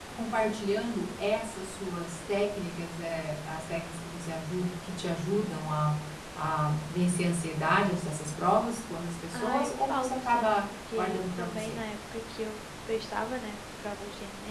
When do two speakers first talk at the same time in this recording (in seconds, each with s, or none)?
9.3 s